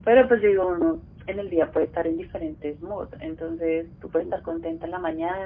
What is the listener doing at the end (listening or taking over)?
listening